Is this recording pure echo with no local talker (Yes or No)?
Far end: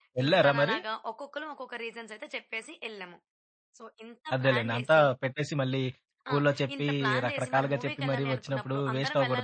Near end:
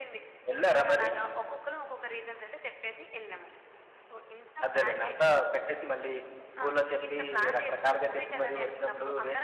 Yes